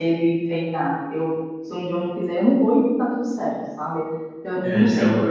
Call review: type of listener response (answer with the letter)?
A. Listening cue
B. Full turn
B